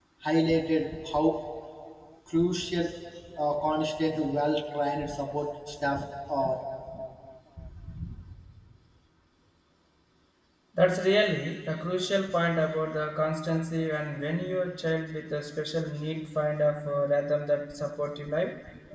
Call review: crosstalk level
none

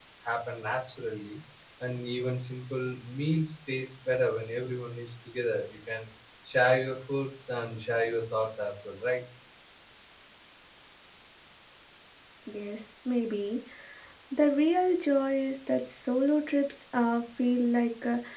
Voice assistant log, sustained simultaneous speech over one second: none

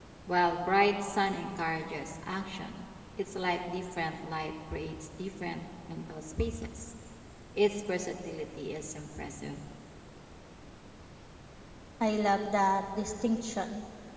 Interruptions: none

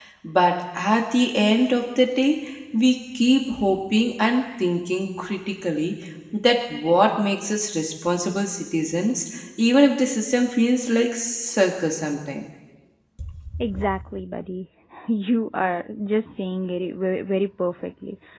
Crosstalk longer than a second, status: none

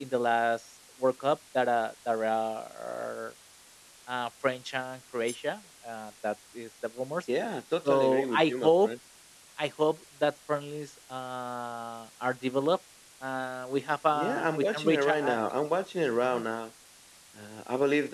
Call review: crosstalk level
present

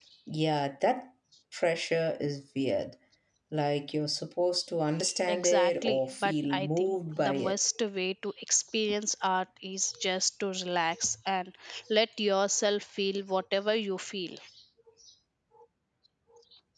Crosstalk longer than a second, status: present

